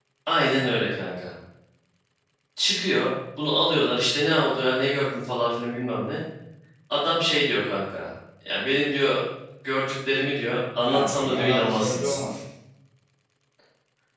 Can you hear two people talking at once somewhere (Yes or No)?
Yes